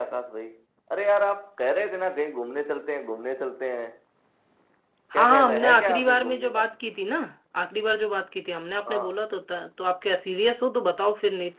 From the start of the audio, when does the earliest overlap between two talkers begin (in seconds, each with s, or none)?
5.2 s